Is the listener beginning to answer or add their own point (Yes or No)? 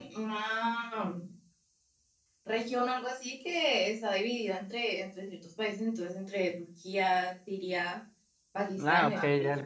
Yes